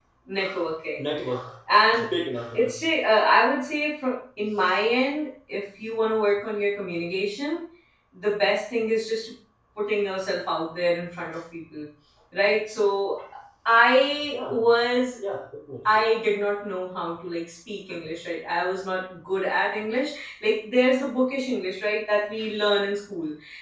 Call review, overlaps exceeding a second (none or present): none